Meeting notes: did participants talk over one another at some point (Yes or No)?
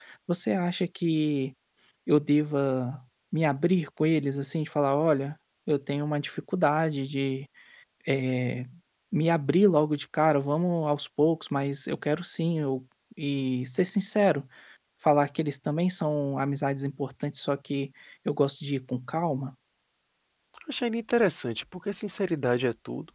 No